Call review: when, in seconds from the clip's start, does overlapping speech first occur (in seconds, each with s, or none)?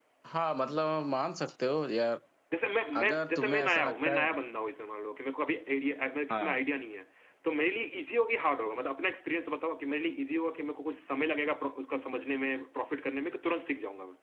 3.0 s